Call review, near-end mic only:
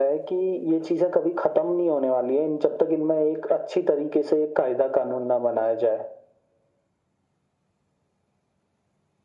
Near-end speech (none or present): none